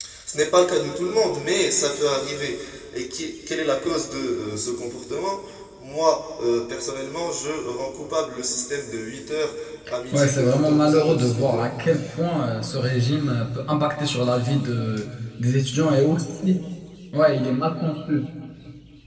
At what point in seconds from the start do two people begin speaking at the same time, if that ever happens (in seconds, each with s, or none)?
10.1 s